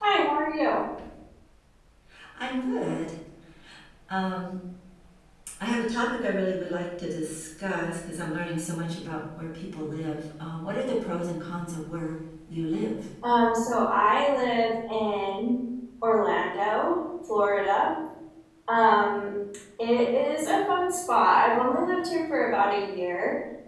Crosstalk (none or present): none